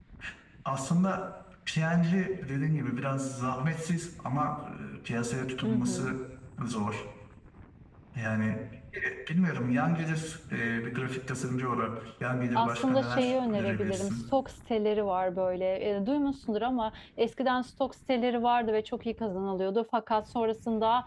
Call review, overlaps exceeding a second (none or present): present